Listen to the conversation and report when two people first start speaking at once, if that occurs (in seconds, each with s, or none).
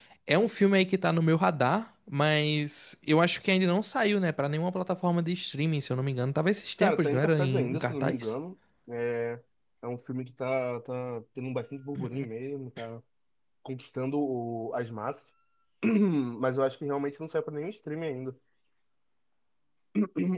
6.8 s